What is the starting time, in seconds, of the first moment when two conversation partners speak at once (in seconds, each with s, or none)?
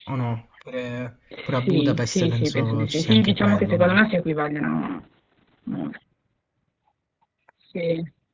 1.3 s